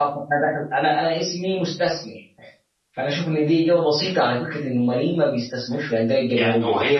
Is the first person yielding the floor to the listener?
Yes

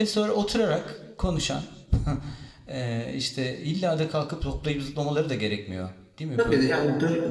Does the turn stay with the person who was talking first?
No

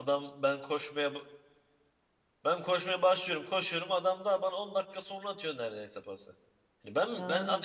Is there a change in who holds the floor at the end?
Yes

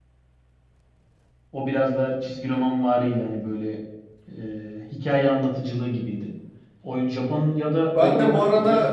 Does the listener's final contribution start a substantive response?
Yes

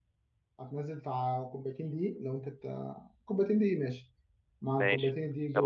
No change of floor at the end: No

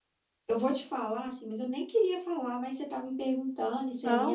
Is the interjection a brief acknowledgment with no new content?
Yes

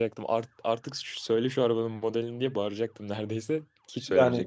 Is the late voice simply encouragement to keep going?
No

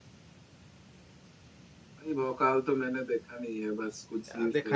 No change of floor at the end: No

